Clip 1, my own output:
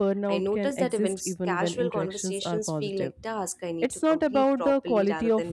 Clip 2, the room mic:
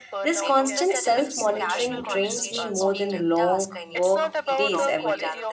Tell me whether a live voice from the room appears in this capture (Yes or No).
Yes